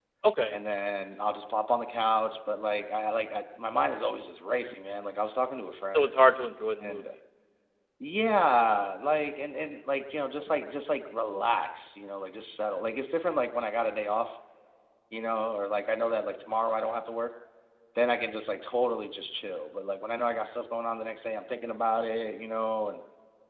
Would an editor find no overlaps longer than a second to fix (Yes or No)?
Yes